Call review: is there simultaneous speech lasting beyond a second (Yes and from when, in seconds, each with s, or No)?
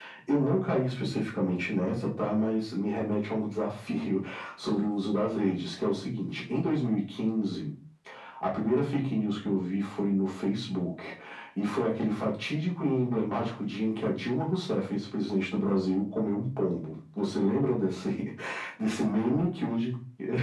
No